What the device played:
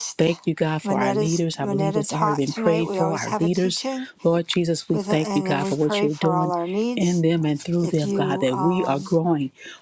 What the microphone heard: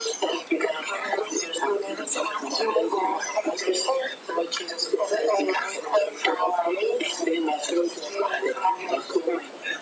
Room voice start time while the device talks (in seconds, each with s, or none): none